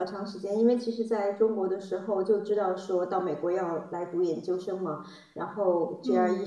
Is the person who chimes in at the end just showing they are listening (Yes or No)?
Yes